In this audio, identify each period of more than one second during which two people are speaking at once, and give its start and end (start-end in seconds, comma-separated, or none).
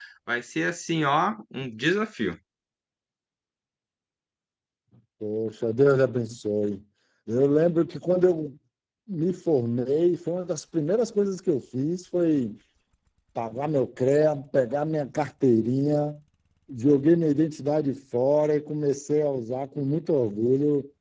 none